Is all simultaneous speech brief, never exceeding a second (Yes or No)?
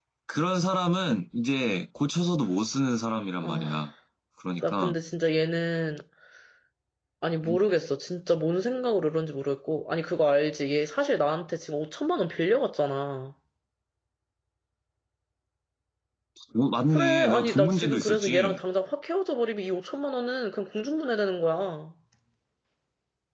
No